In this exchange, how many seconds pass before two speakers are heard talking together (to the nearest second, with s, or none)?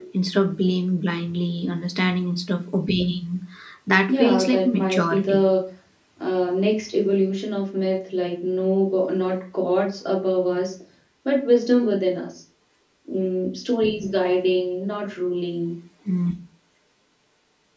4 s